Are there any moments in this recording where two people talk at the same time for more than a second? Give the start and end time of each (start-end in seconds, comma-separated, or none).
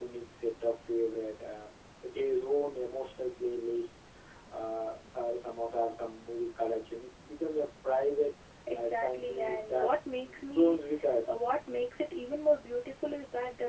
8.7-10.0